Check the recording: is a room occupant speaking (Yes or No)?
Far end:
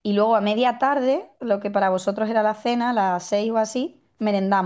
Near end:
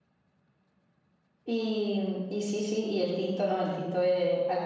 Yes